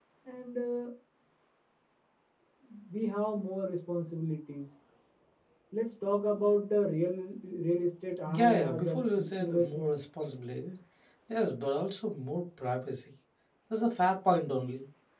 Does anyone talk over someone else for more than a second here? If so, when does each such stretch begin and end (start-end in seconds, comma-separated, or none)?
8.3-10.0